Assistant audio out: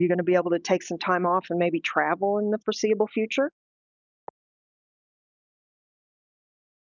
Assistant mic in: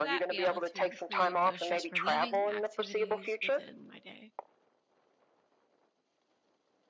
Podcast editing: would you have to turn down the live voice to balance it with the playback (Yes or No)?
No